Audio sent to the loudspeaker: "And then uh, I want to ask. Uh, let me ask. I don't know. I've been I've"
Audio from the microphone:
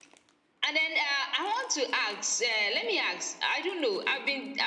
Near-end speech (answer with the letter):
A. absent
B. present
A